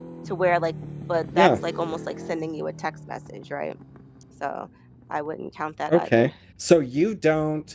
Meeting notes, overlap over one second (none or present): none